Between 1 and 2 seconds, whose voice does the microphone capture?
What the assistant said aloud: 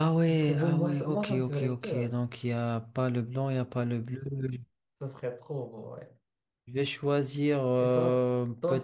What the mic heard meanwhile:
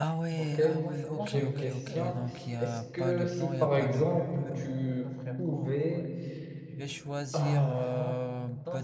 both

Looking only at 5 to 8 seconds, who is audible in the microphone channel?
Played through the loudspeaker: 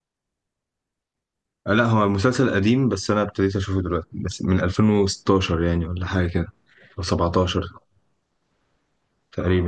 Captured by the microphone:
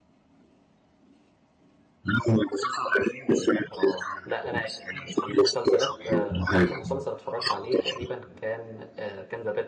both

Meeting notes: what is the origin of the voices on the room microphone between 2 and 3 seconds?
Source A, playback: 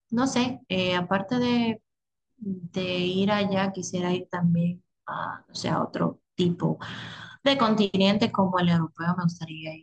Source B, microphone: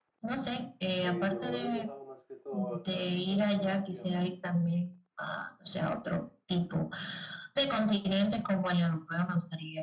both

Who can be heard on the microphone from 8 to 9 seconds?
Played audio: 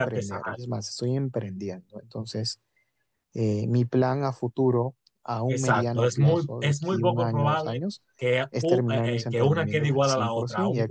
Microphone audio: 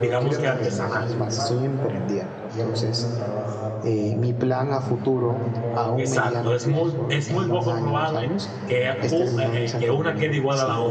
both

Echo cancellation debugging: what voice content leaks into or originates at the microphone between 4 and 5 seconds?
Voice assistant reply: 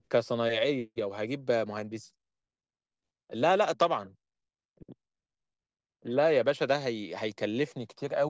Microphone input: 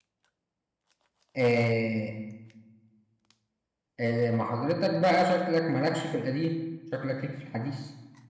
user only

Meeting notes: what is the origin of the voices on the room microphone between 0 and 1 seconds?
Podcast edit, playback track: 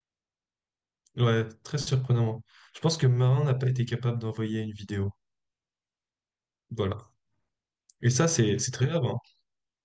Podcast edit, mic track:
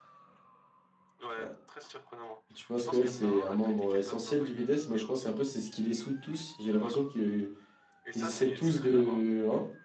neither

